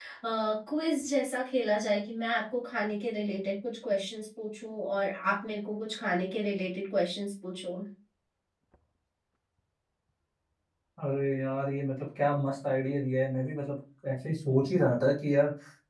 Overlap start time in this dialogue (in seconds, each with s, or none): none